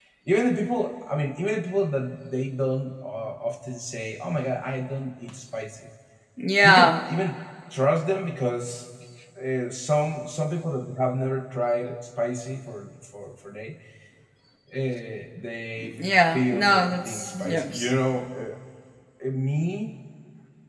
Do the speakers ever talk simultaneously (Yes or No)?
Yes